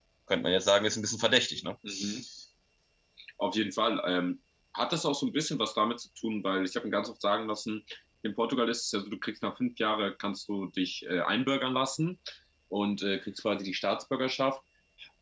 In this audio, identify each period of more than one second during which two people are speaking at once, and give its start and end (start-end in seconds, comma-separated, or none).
none